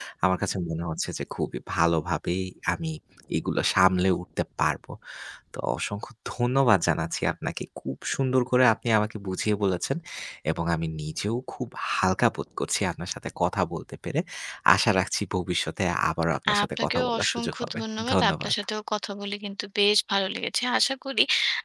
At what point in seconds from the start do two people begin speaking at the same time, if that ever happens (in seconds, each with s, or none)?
16.5 s